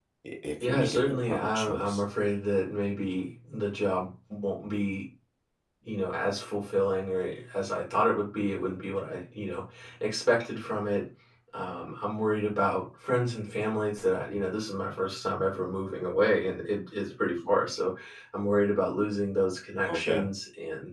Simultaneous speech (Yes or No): Yes